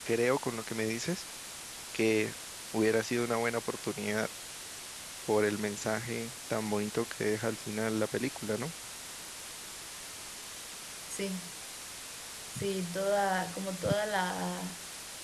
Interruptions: none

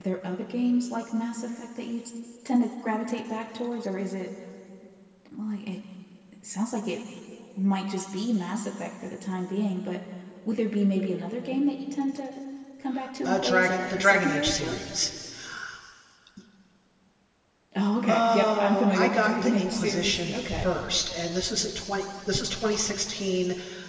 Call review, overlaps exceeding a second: present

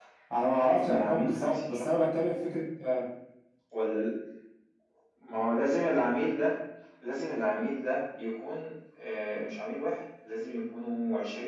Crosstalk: present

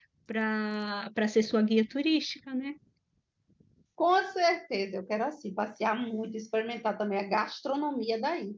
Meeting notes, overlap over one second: none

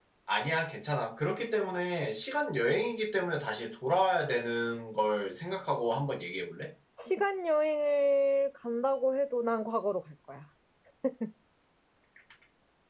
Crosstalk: none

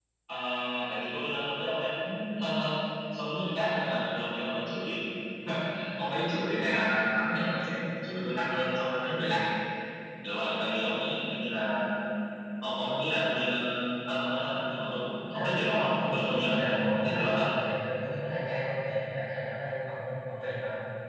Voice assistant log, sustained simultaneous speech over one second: present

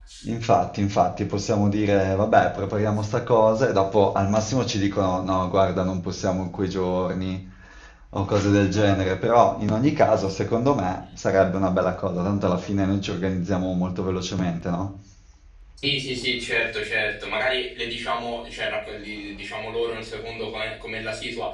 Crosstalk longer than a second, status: none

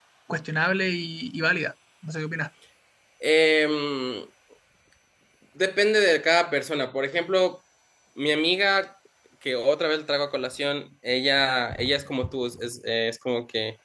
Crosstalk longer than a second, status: none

